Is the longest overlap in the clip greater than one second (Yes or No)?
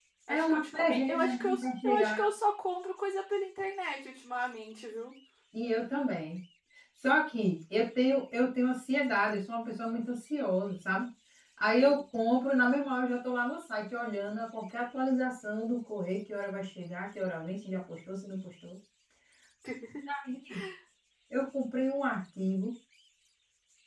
Yes